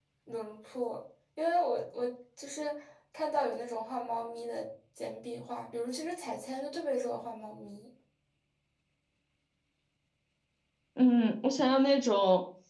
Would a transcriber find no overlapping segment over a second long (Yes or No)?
Yes